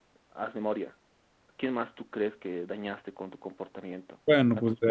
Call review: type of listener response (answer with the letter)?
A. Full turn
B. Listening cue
A